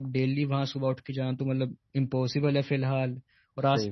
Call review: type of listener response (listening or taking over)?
listening